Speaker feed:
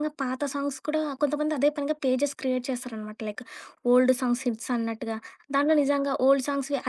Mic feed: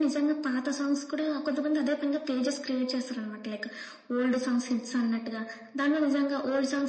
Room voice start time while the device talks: none

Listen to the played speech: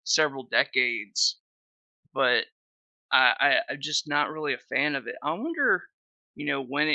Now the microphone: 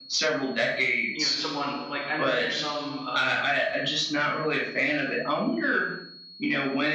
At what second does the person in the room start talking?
1.1 s

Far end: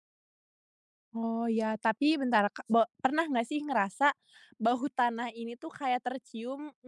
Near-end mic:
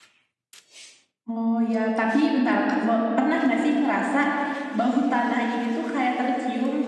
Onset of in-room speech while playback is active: none

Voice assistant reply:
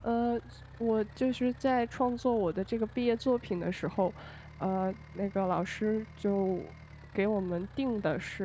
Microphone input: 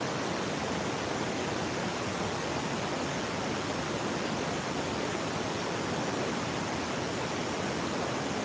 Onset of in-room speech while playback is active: none

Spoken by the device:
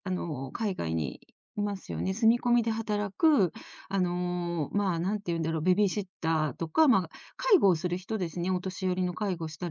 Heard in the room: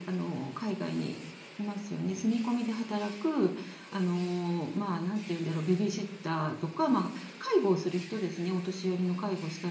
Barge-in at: none

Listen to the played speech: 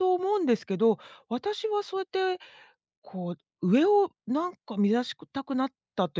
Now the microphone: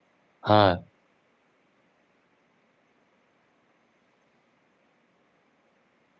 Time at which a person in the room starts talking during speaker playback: 0.4 s

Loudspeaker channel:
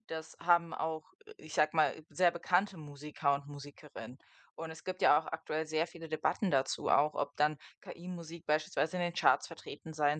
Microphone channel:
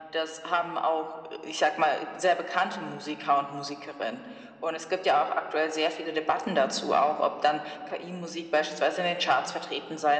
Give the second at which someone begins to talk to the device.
none

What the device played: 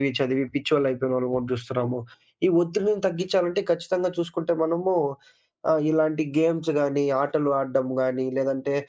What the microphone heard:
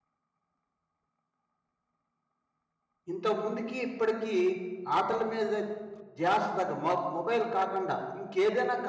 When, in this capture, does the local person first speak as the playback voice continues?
3.1 s

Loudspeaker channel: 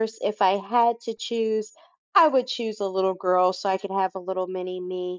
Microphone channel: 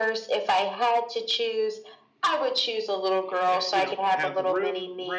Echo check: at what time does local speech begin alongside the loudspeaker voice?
3.2 s

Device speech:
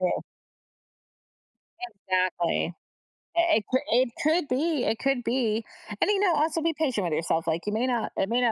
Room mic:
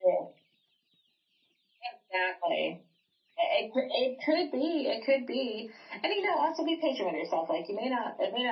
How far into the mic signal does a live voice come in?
none

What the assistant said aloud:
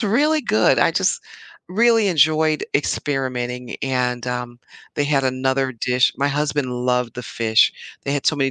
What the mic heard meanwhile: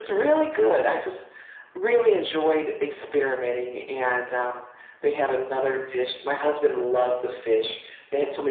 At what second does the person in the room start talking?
none

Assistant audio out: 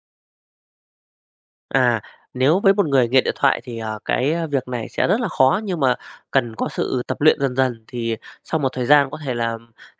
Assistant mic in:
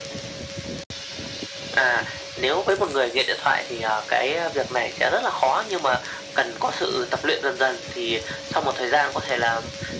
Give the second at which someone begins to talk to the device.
none

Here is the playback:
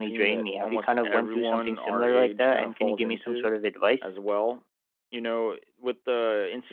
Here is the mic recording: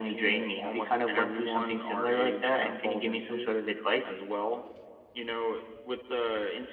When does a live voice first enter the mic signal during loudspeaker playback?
none

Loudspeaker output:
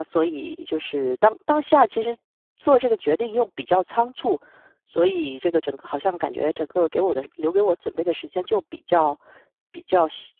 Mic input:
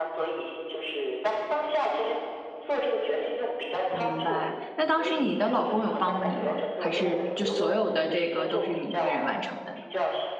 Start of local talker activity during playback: 3.9 s

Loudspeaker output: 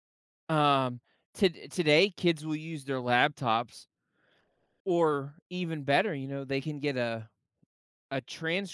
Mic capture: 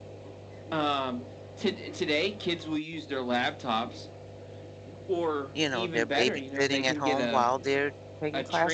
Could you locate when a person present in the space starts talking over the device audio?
5.5 s

